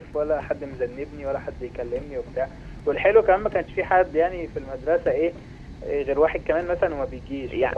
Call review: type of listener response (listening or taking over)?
taking over